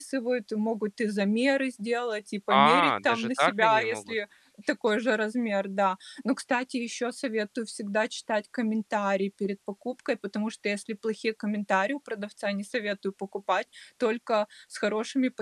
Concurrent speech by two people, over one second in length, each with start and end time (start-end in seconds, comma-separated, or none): 2.5-4.0